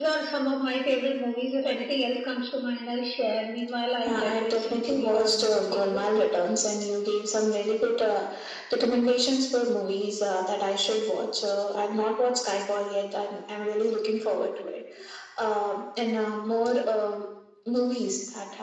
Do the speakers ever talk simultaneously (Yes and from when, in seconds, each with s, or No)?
Yes, from 4.0 s